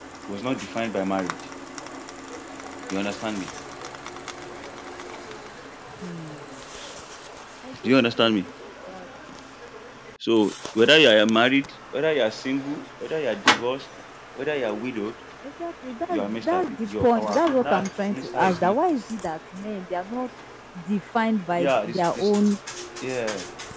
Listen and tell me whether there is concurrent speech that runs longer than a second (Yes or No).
Yes